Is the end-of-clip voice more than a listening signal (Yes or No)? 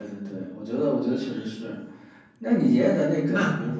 No